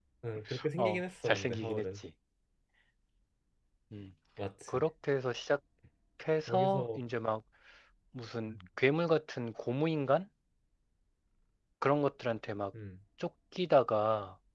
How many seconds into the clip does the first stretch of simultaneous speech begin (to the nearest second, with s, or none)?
1 s